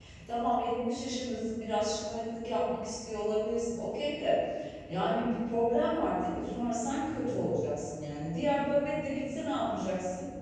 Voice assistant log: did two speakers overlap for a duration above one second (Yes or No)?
No